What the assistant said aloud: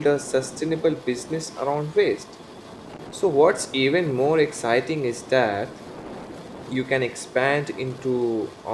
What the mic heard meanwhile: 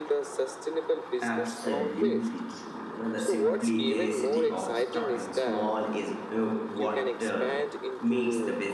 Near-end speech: present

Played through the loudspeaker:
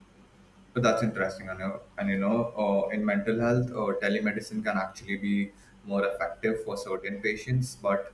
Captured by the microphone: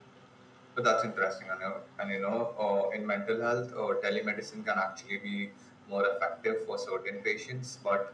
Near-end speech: none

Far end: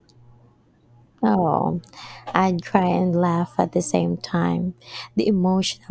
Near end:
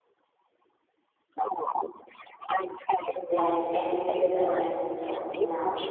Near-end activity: present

